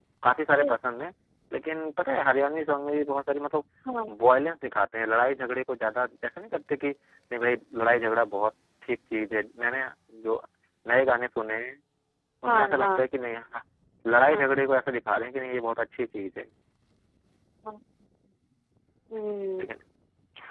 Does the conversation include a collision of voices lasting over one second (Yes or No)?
No